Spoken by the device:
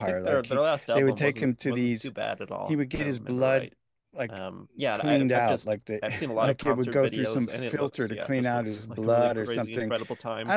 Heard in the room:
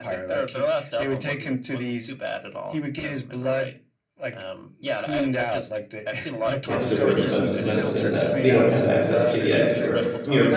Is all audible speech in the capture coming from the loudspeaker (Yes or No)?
No